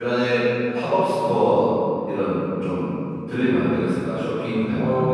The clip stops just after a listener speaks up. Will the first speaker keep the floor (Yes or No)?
No